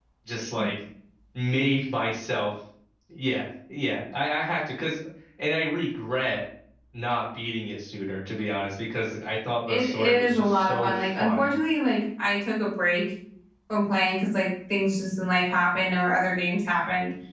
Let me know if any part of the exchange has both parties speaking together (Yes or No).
Yes